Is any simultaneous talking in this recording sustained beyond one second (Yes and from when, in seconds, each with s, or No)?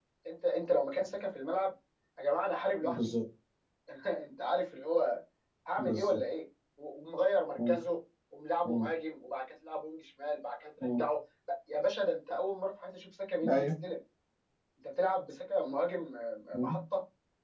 No